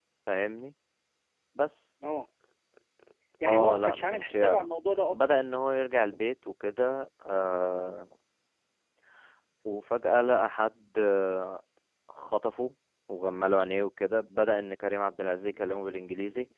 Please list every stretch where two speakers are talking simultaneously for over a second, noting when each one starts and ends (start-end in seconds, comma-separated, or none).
3.5-4.7